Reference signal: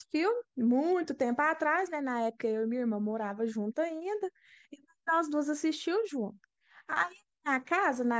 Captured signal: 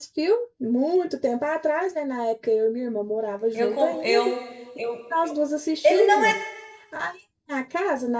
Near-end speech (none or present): present